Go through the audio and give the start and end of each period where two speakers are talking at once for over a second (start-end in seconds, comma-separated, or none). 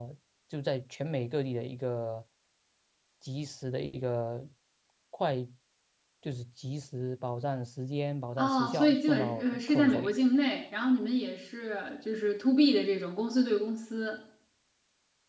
8.4-10.1